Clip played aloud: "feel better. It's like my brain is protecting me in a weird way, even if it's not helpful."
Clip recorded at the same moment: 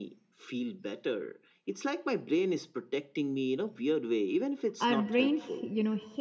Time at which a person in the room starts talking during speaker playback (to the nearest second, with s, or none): 5 s